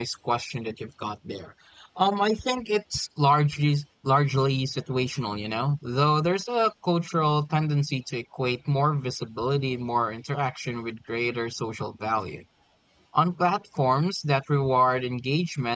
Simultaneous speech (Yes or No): No